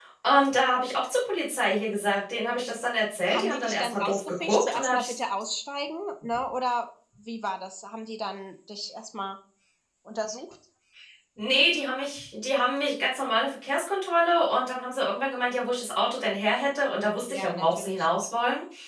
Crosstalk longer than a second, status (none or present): present